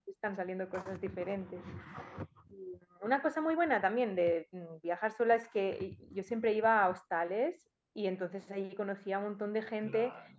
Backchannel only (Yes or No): Yes